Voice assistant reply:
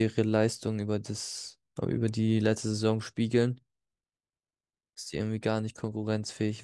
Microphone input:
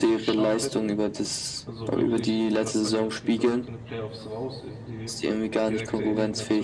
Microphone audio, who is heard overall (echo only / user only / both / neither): both